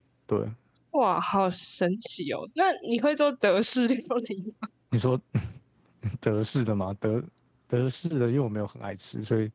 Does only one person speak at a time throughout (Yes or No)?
Yes